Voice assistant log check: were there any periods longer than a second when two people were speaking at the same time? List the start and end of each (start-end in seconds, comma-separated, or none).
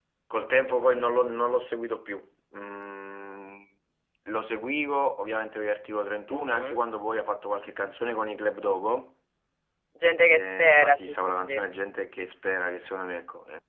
10.3-11.6